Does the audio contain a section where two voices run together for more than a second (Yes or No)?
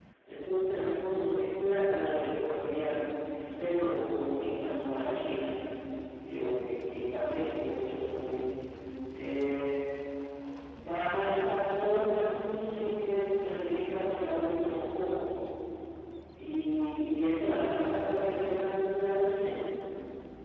No